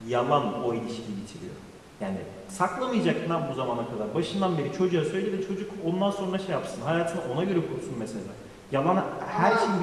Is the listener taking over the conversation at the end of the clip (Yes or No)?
No